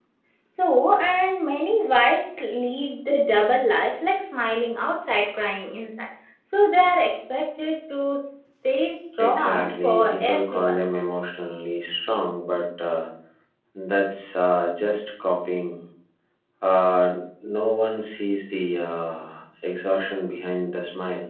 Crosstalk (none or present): present